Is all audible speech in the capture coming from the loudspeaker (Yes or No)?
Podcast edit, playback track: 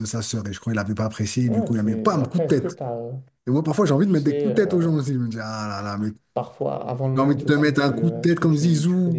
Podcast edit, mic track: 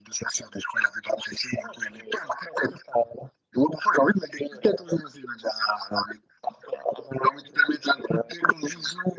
Yes